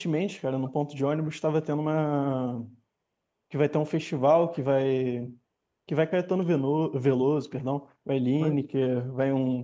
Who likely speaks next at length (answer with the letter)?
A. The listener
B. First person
B